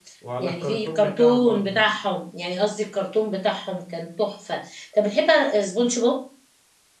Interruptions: present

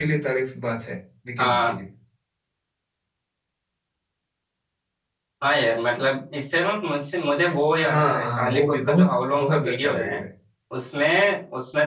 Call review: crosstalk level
present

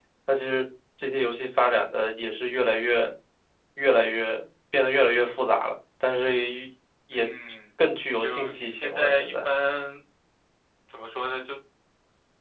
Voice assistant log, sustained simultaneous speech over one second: present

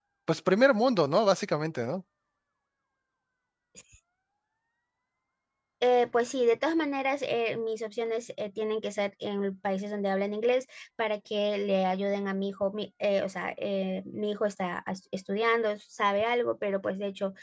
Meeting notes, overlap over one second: none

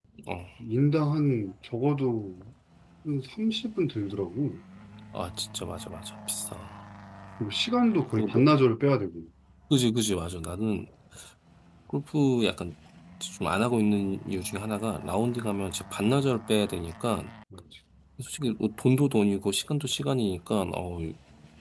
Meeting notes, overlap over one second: none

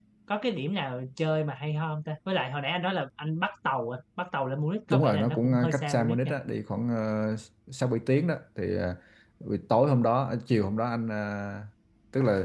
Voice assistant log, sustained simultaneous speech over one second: present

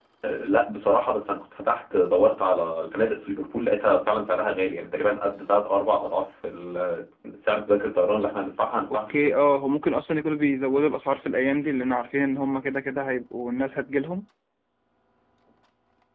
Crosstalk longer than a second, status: none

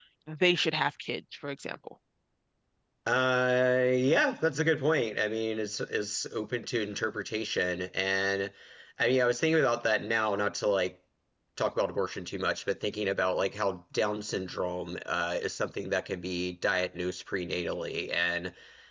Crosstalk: none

